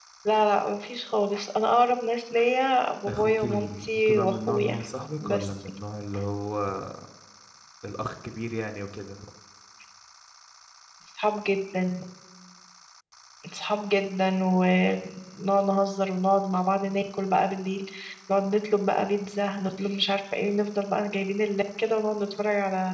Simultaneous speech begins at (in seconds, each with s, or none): 3.1 s